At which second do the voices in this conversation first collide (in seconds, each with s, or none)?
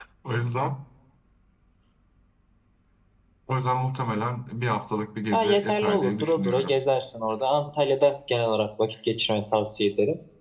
5.3 s